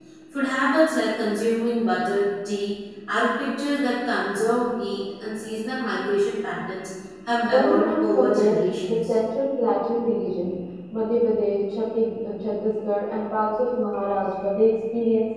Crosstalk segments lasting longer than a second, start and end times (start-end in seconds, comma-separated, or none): 7.4-9.1